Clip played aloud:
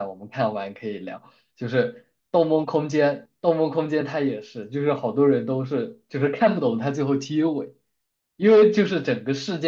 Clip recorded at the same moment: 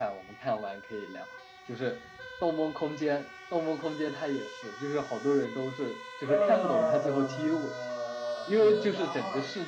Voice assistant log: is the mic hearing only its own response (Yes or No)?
No